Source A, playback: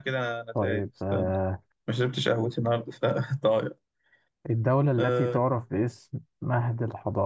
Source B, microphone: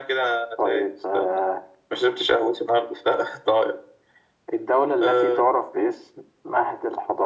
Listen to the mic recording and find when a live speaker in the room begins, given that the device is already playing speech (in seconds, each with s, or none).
none